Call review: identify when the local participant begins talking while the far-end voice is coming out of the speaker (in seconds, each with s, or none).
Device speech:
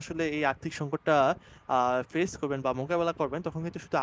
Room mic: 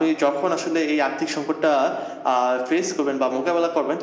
none